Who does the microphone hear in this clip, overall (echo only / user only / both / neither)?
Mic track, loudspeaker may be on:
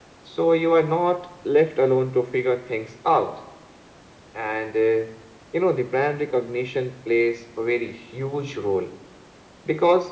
echo only